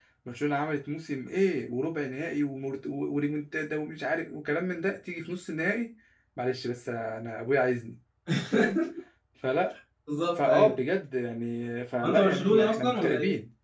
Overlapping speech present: Yes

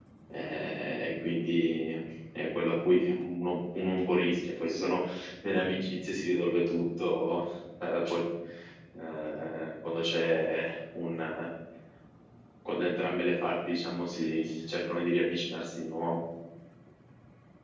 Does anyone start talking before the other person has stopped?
No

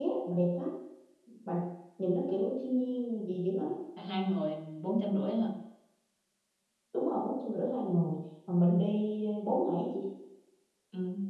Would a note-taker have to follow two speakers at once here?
No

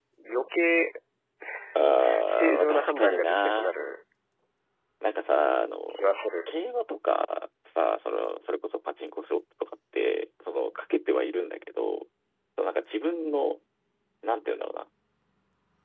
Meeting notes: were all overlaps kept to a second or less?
No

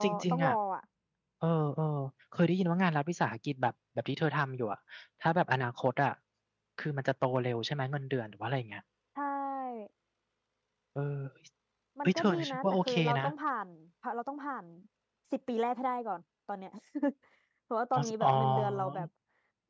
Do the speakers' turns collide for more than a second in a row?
Yes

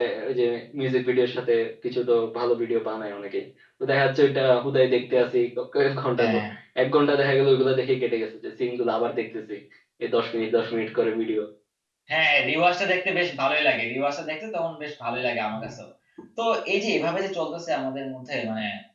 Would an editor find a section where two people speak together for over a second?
No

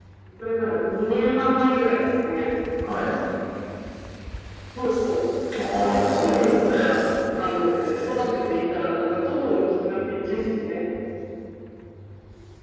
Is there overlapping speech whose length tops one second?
Yes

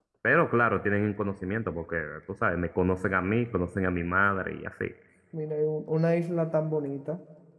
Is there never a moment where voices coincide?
Yes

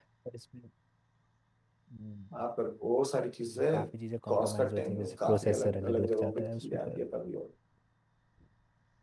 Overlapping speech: Yes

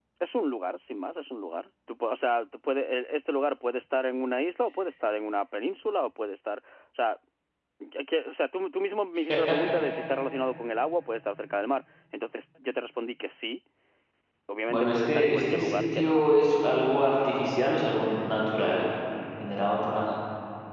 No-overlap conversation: No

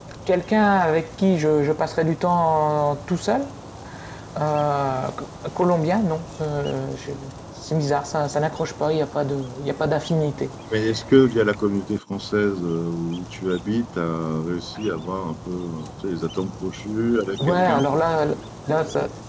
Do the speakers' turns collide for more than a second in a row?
No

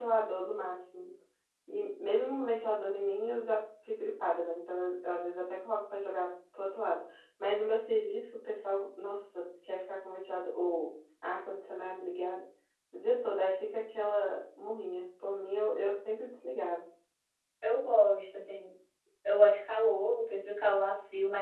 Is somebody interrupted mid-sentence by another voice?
No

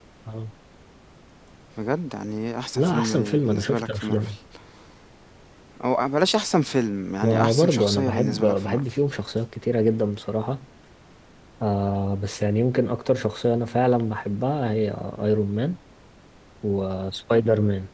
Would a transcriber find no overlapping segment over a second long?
No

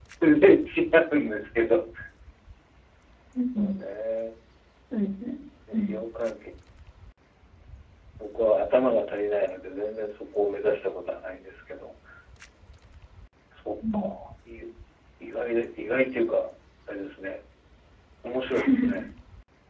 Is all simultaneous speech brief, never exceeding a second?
Yes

